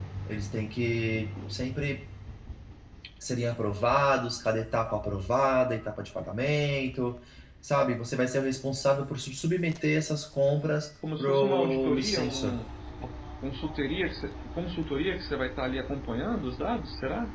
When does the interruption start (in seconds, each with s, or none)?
11.0 s